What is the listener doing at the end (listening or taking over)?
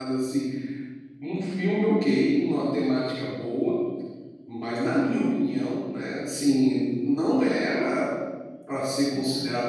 listening